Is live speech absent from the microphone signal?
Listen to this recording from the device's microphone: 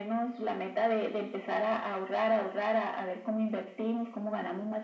Yes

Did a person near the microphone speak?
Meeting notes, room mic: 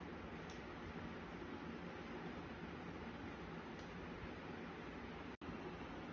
No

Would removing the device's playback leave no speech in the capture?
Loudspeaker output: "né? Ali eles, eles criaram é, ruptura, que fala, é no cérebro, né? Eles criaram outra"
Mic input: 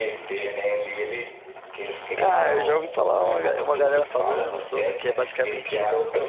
No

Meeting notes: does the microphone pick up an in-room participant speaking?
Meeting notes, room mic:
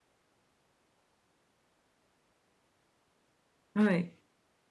Yes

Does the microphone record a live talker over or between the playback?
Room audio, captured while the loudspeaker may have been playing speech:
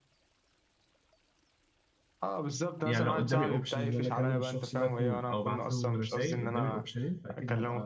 Yes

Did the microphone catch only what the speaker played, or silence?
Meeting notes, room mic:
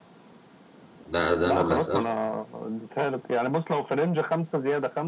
No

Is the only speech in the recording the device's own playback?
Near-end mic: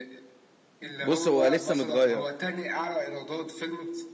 No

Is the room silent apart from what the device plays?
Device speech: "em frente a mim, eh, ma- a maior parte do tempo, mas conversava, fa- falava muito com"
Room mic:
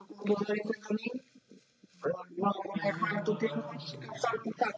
No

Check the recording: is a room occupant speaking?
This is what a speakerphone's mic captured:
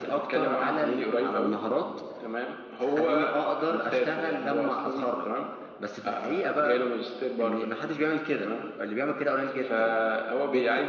No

